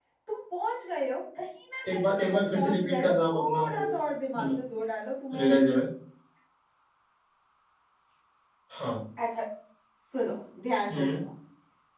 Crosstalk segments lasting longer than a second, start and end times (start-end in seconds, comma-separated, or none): 1.9-3.9